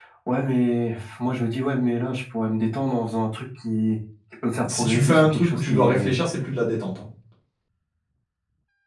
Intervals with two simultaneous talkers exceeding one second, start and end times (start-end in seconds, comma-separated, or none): 4.6-6.1